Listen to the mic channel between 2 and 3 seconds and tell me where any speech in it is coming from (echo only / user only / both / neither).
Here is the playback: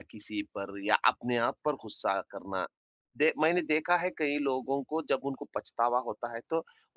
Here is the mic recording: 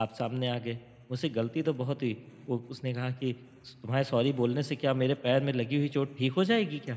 user only